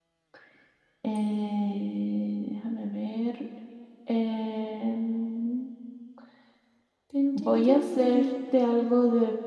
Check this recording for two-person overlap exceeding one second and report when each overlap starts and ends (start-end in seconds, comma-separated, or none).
7.4-8.7